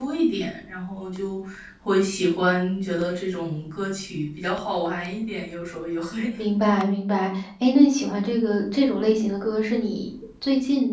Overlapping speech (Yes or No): No